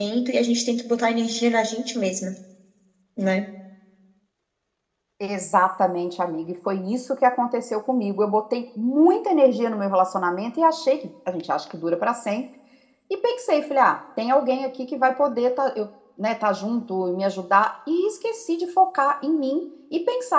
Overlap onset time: none

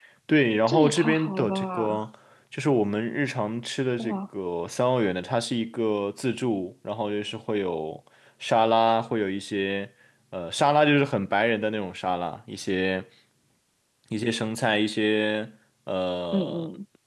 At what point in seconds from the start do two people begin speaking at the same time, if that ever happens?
0.7 s

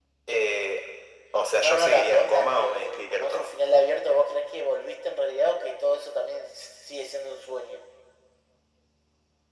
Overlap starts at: 1.6 s

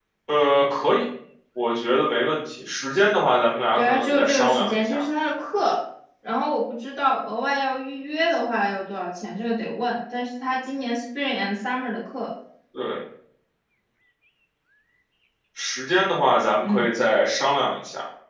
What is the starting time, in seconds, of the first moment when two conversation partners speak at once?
3.8 s

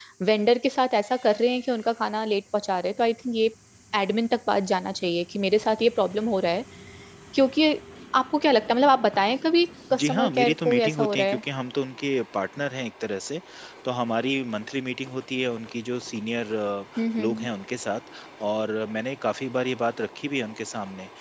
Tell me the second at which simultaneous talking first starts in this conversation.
9.9 s

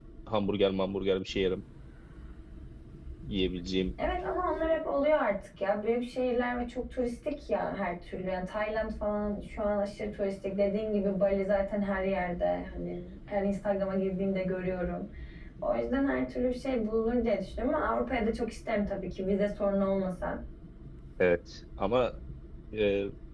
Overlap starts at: none

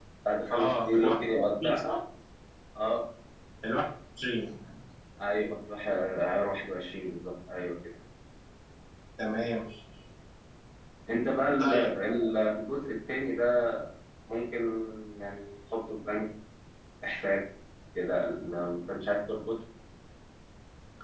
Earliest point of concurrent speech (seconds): 0.5 s

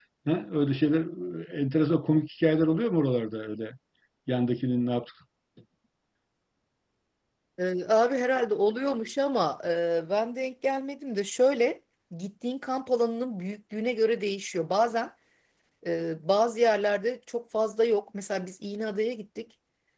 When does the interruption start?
none

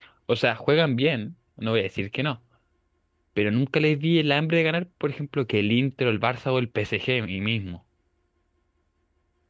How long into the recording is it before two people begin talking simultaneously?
none

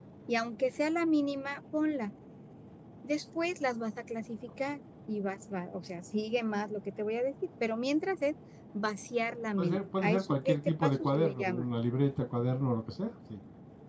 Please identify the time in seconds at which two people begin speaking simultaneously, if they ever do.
9.6 s

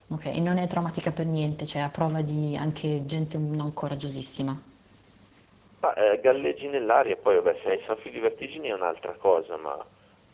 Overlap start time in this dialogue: none

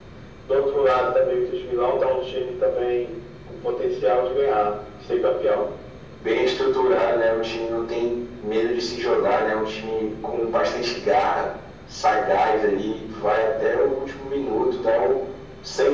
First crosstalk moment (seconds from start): none

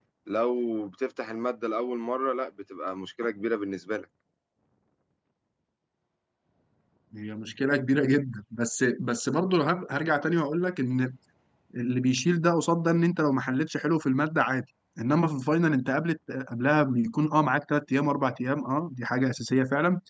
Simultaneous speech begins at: none

